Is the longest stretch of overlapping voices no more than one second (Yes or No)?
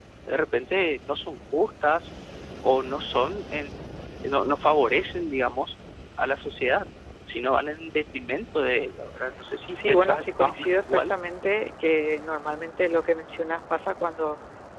No